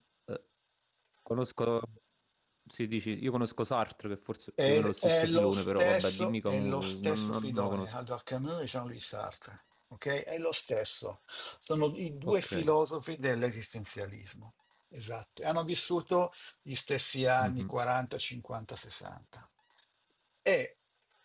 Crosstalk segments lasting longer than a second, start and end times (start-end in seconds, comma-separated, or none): 4.6-7.9